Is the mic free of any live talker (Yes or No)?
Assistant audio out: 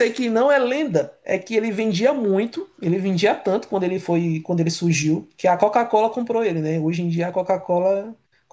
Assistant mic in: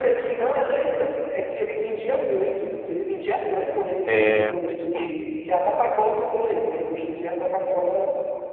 No